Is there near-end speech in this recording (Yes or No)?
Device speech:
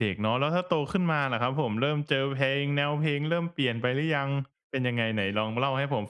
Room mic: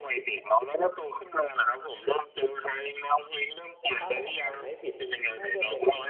Yes